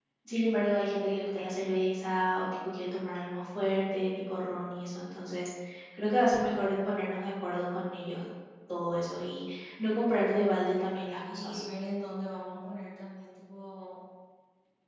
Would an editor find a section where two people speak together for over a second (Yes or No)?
No